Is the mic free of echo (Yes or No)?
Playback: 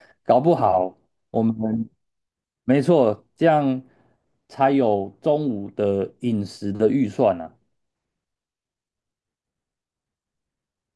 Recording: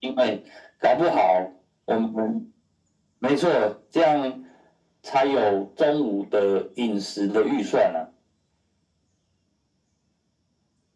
No